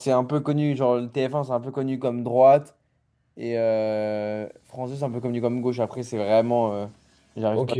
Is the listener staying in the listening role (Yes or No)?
No